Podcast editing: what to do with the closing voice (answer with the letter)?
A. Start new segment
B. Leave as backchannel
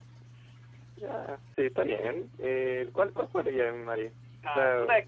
A